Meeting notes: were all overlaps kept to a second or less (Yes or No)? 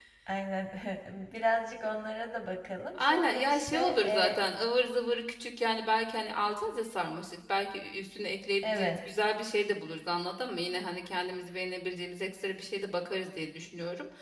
No